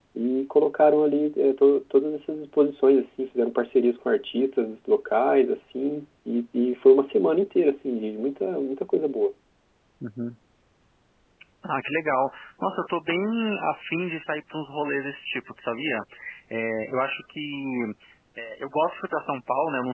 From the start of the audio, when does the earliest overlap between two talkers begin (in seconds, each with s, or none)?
none